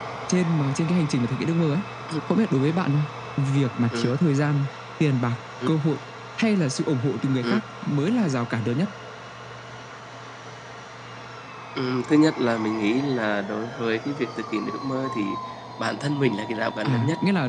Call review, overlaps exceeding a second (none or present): none